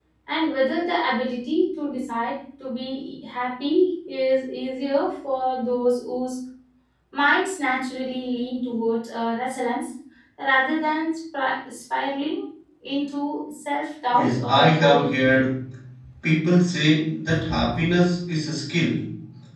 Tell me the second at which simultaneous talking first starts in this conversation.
14 s

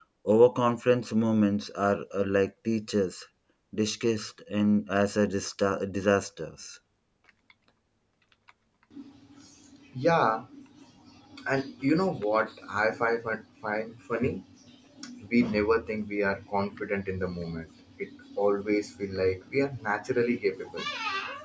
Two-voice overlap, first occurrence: none

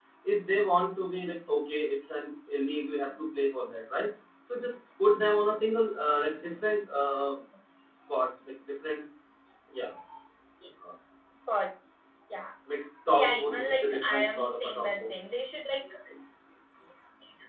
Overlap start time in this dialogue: 13 s

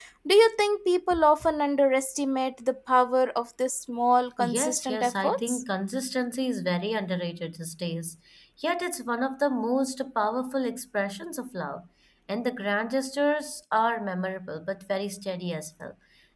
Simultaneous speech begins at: 4 s

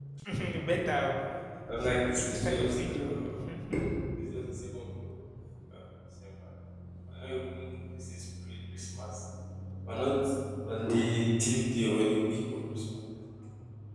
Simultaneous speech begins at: 2 s

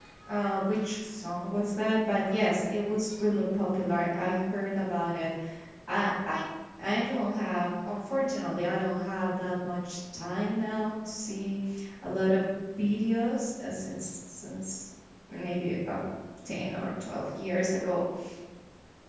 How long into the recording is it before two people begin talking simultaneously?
none

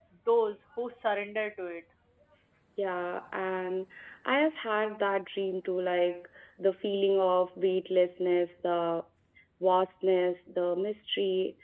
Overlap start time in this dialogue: none

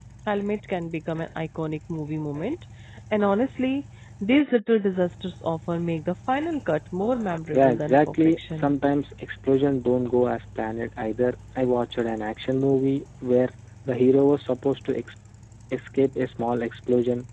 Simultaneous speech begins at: 8 s

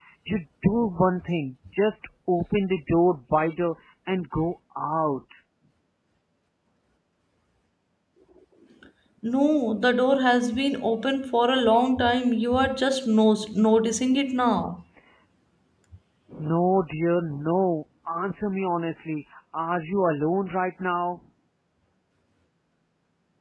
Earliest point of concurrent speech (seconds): none

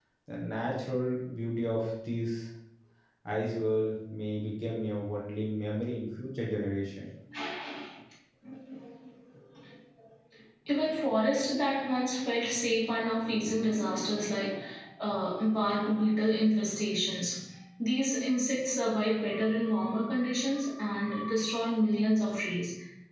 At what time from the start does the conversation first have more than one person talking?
none

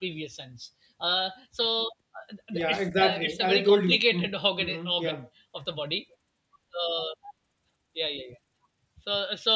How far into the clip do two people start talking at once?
3 s

